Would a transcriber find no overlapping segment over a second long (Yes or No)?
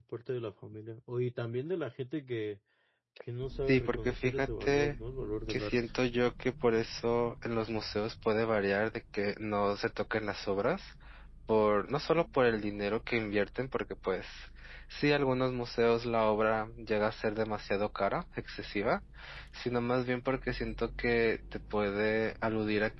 No